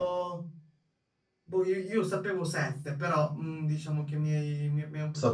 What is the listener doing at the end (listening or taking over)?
taking over